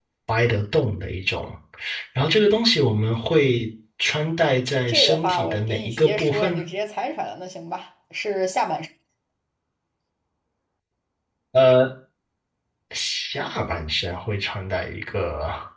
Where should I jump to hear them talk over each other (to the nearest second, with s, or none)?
5 s